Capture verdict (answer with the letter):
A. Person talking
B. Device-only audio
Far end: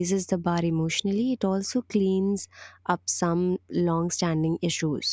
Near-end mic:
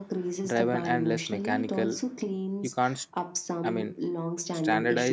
A